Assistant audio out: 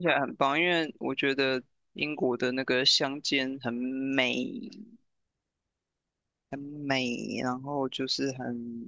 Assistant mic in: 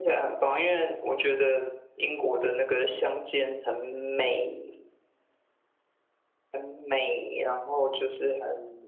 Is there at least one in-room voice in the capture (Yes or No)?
No